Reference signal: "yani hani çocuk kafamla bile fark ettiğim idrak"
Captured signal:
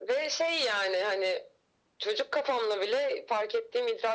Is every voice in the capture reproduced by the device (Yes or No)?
Yes